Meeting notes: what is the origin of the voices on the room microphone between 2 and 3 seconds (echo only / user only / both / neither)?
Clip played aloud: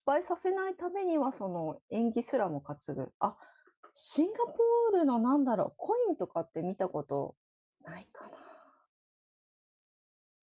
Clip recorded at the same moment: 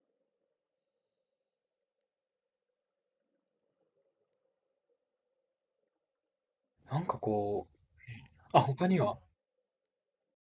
neither